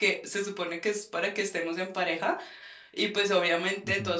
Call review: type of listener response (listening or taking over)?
listening